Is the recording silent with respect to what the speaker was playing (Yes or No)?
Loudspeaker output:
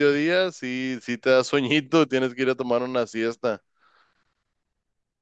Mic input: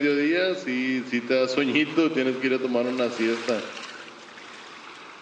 No